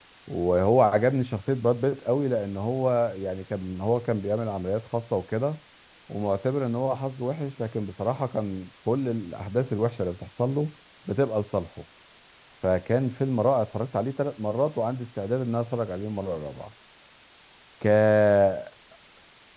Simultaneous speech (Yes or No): No